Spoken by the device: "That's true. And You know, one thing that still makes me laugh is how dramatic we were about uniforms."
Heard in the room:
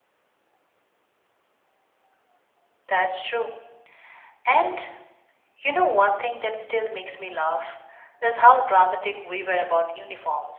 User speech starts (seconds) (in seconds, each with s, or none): none